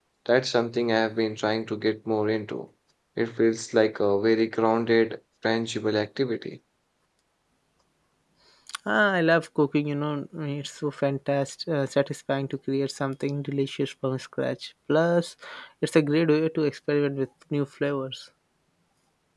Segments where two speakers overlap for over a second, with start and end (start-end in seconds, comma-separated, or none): none